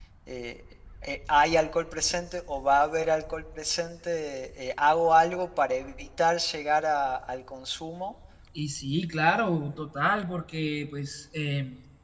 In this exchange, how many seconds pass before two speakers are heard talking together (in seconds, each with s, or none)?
none